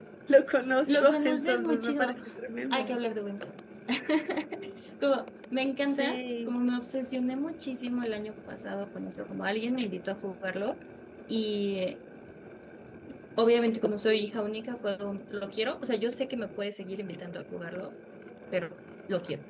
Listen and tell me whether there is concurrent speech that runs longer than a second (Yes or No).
Yes